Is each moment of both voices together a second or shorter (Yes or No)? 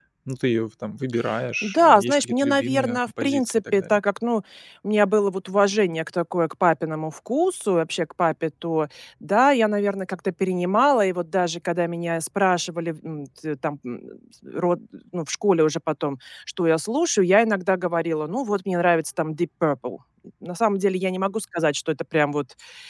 No